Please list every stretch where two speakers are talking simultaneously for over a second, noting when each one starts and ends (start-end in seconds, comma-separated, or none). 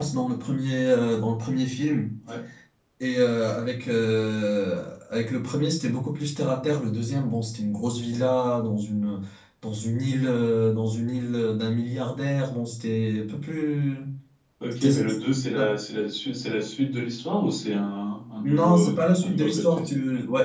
18.4-19.9